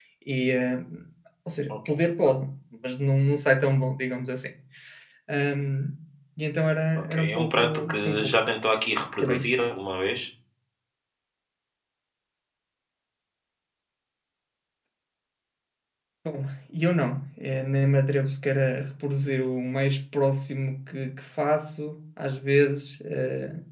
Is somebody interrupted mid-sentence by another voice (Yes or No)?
Yes